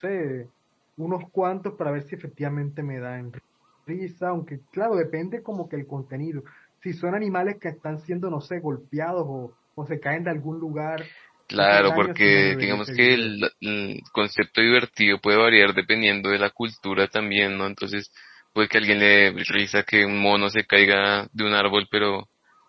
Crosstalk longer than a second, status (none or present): present